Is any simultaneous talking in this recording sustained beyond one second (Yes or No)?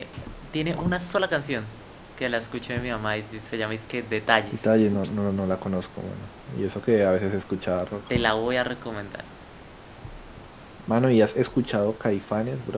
No